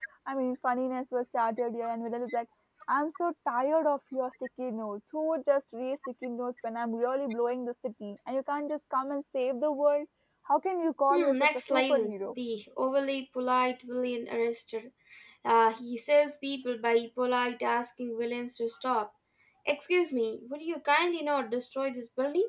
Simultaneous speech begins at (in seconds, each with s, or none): 11.1 s